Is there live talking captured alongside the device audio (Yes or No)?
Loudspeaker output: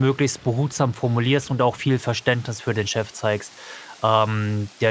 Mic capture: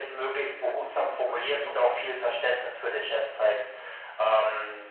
Yes